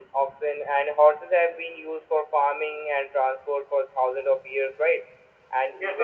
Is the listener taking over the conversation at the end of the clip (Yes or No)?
Yes